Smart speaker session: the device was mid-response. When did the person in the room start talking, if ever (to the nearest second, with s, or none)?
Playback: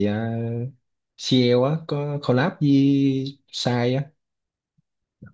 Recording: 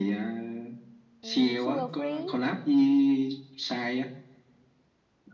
1 s